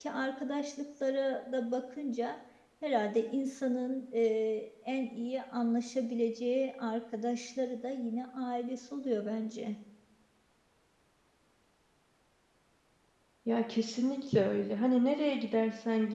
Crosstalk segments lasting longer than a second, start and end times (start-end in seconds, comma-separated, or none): none